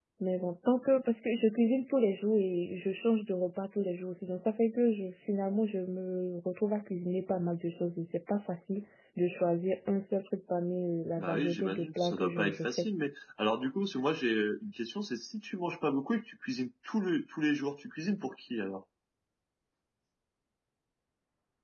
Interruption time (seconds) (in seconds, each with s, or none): 11.2 s